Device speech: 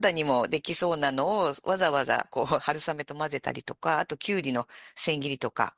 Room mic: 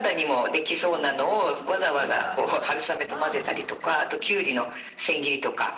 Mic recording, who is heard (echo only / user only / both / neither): both